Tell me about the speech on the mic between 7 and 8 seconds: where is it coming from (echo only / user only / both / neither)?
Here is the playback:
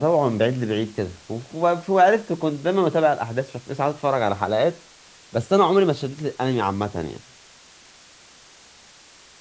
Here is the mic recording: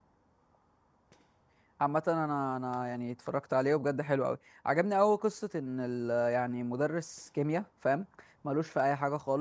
user only